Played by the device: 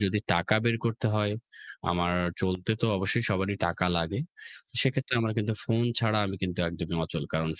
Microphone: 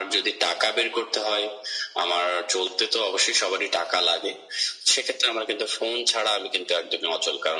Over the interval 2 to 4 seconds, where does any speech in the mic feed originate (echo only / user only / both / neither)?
echo only